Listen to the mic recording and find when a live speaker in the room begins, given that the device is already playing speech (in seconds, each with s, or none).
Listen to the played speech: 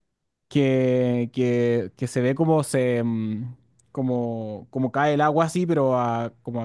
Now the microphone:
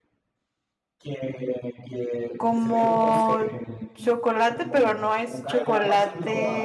2.4 s